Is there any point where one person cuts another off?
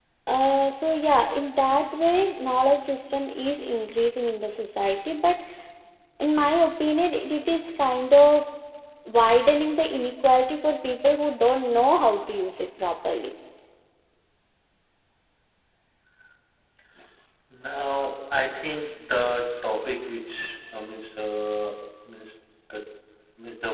No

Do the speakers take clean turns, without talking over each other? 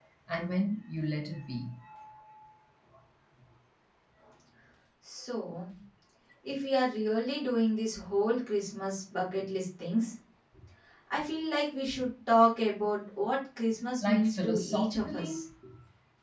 No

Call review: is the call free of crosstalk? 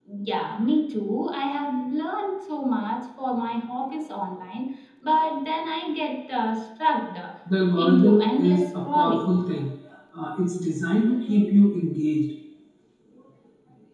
No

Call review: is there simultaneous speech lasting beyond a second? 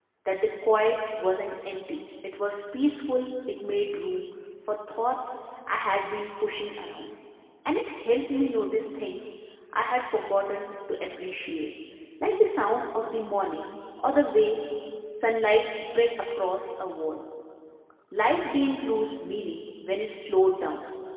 No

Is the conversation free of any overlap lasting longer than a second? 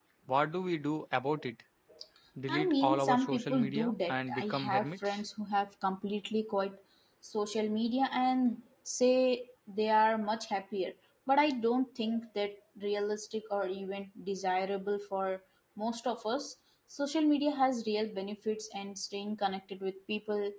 No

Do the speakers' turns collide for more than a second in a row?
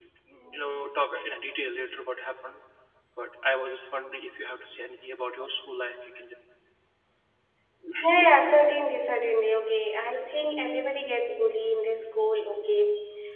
No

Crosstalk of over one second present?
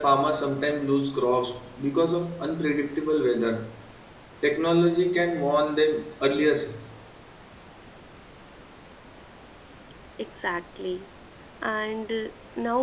No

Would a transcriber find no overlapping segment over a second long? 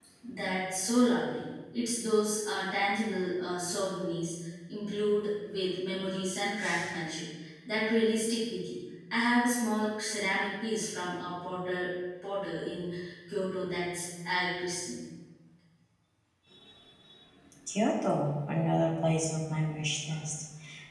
Yes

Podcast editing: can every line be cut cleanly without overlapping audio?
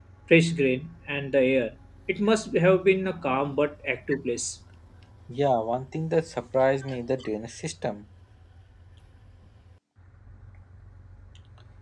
Yes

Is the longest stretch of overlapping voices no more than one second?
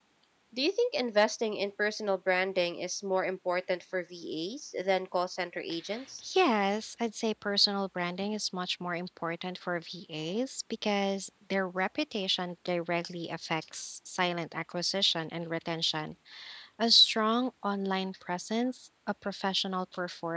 Yes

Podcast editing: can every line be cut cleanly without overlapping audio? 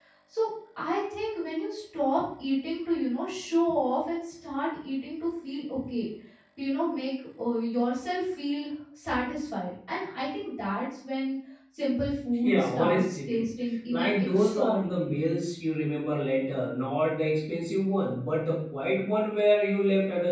No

